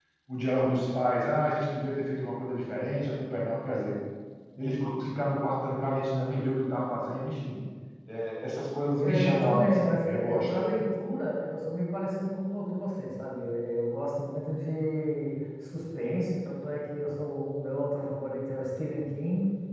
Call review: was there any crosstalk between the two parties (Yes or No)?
Yes